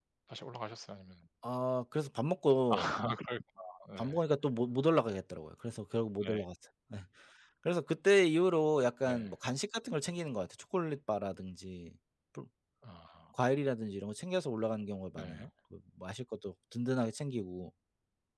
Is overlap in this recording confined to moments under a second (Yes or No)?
Yes